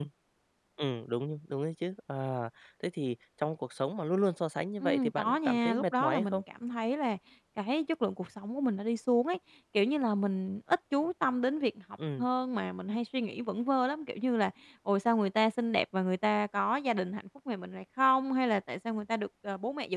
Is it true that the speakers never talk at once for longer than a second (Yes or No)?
No